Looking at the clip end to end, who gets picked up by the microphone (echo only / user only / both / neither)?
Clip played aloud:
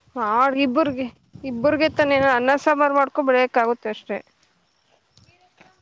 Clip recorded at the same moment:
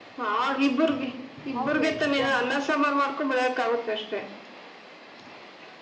both